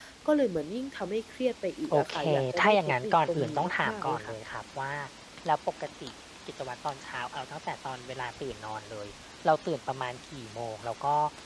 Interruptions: present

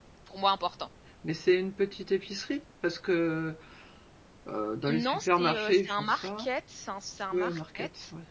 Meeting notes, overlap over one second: present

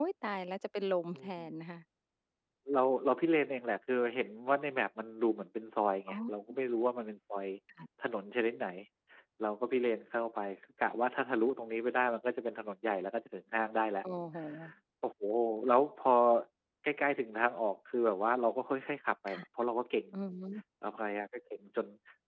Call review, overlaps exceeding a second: none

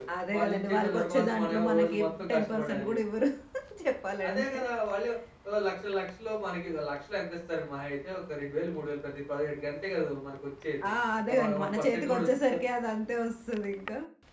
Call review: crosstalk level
present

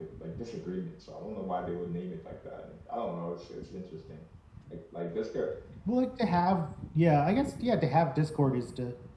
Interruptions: none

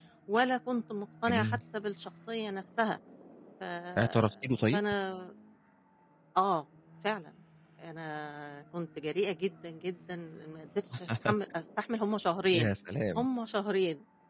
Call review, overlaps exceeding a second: none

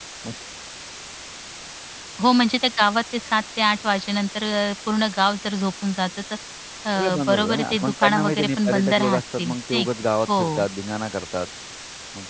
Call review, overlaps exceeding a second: present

